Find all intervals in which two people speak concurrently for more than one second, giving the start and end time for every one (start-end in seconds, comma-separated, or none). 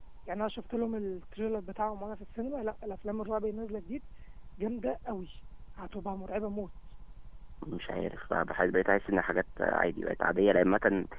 none